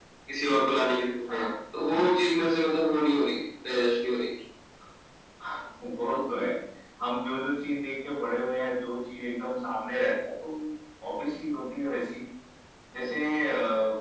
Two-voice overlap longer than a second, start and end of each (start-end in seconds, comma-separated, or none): none